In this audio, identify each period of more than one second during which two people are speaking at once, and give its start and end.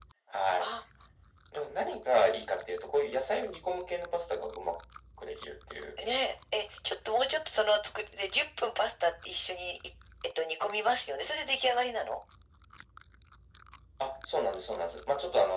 none

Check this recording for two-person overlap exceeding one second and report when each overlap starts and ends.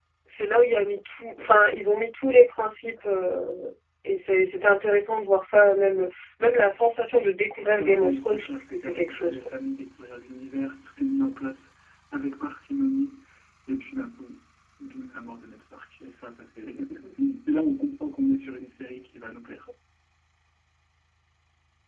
7.8-9.3

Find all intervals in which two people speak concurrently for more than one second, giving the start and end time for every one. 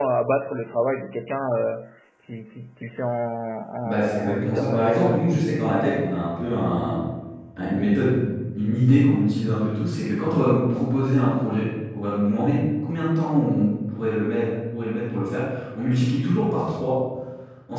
3.8-5.2

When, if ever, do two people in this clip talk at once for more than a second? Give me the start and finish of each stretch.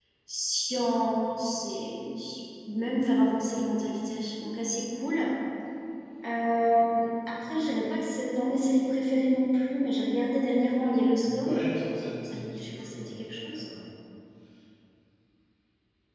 12.2-13.6

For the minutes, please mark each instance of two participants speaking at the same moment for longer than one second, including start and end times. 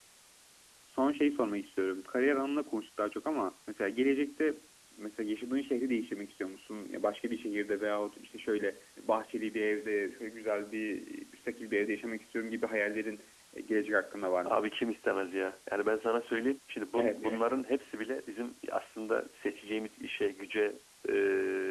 none

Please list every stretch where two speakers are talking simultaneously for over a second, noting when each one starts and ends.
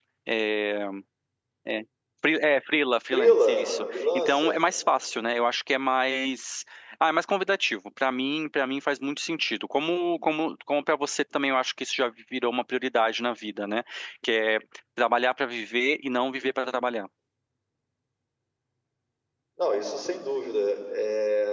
3.1-4.5

